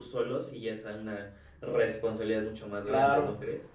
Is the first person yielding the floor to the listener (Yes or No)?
Yes